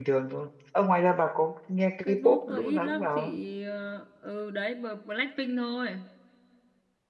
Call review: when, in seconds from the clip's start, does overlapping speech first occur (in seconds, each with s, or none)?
2.0 s